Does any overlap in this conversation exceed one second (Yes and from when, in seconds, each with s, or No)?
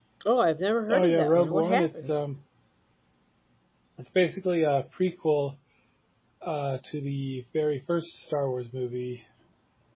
Yes, from 0.9 s